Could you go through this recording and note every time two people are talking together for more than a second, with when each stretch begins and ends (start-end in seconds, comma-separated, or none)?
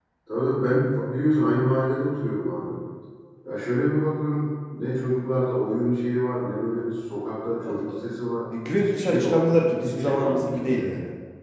8.8-10.8